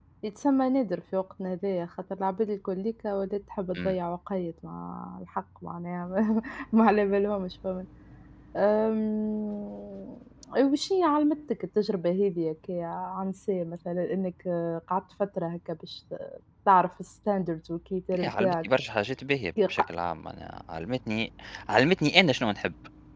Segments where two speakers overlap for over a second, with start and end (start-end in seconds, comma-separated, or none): none